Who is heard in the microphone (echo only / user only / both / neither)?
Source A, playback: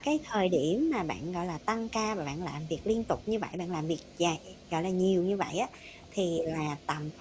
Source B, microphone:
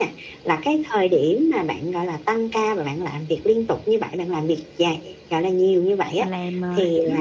both